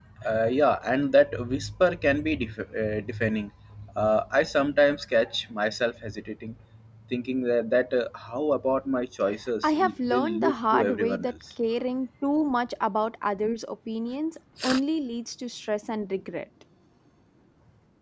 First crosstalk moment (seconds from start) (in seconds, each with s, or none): 9.6 s